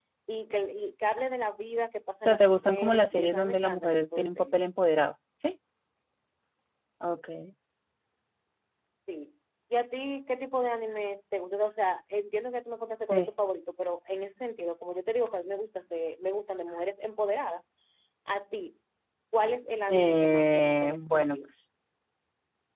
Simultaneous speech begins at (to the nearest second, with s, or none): 2 s